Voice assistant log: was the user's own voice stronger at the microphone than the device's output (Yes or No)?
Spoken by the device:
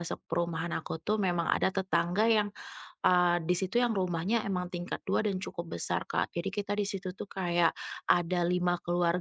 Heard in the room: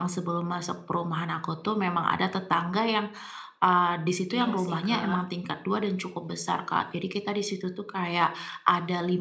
No